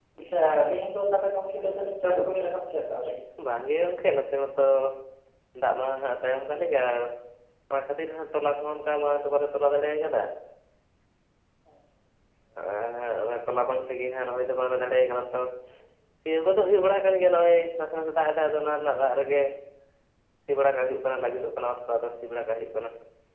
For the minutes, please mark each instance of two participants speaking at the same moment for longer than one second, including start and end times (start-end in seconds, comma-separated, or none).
none